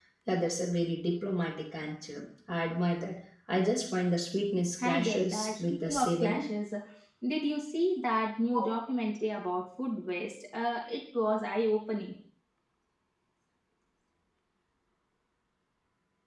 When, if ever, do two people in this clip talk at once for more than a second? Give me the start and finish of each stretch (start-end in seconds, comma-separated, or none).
4.8-6.4